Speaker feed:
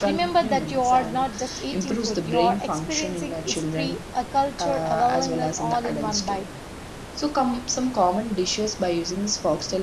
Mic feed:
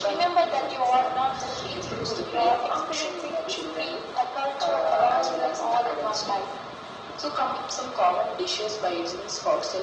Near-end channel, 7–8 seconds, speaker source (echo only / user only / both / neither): echo only